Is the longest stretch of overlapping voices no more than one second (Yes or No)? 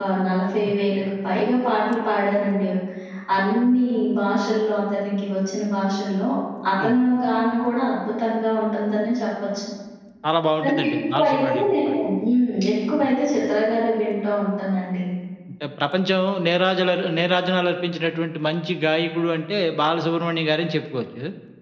No